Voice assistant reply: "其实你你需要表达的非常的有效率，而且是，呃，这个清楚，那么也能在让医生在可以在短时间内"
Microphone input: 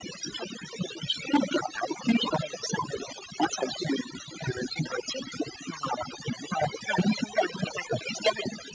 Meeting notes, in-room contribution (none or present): none